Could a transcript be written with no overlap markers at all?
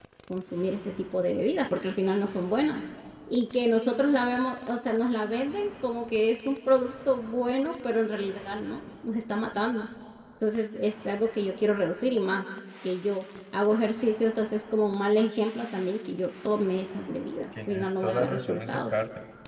No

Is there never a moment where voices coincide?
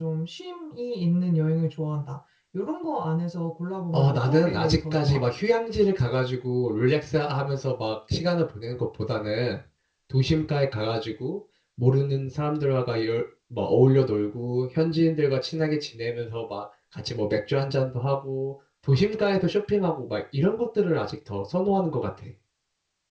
No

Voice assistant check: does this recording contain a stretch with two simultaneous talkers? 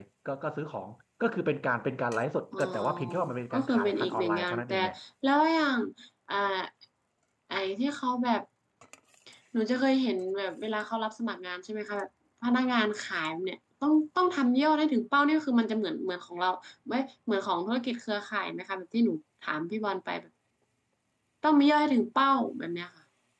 Yes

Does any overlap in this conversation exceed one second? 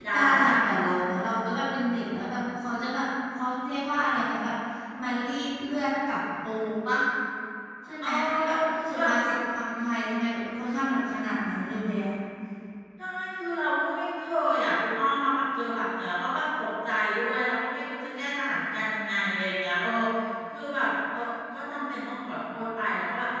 No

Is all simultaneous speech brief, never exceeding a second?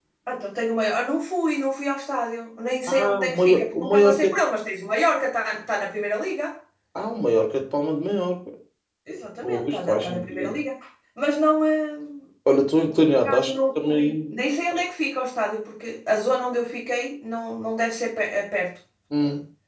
No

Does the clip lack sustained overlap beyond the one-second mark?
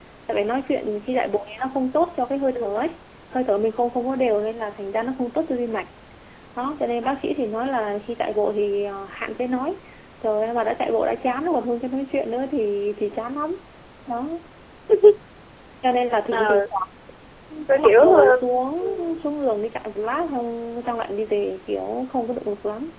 No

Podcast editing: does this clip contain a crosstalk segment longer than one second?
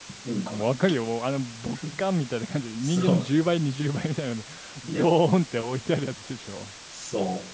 No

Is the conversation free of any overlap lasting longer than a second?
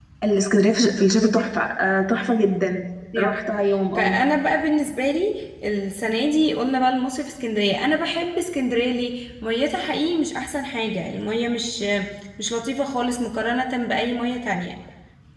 Yes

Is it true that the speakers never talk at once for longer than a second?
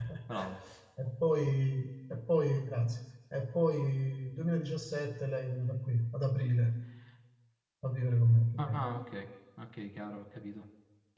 Yes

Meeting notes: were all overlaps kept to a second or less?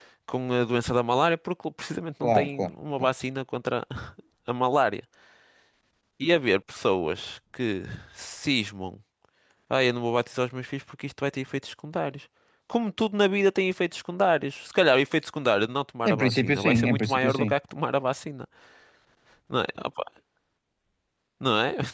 No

